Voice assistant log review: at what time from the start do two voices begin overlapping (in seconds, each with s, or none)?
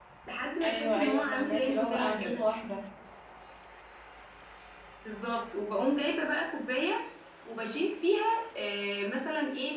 0.6 s